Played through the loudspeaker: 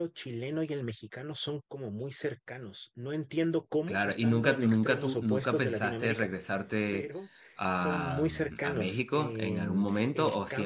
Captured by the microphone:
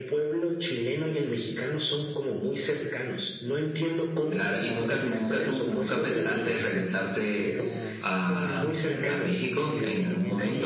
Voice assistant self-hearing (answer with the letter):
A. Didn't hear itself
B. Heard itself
B